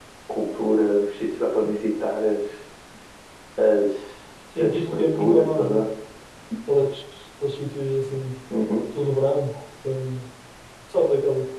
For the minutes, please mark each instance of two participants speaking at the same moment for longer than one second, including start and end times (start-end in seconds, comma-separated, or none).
4.6-5.8